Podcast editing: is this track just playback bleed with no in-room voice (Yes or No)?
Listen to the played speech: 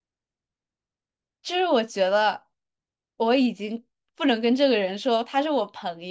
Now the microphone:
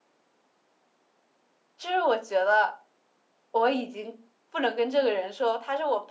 Yes